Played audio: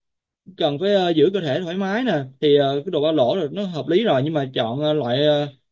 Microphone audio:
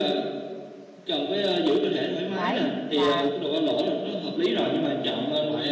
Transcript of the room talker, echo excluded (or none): đấy là